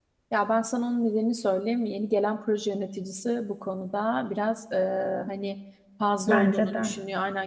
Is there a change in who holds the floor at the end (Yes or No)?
No